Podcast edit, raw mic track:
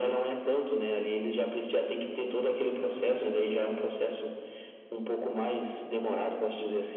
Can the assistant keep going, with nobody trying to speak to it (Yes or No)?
Yes